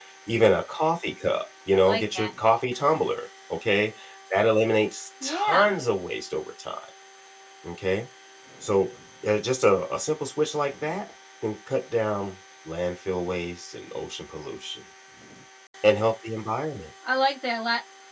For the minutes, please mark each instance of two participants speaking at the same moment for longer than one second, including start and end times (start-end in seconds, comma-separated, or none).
none